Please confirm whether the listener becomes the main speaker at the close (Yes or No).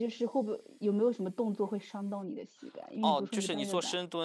Yes